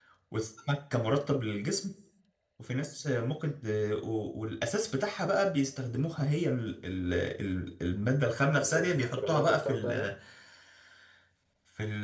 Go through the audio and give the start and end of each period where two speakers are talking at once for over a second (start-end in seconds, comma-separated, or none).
8.6-10.1